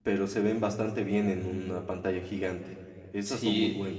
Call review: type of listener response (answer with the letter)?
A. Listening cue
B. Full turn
B